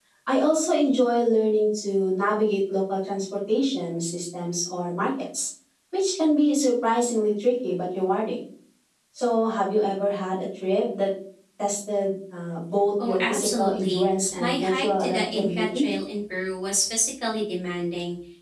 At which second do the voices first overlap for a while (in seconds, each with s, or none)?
13.0 s